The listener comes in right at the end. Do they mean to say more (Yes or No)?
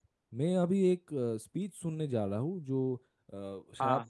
No